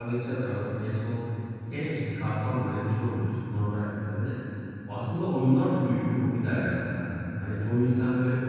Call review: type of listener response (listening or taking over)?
listening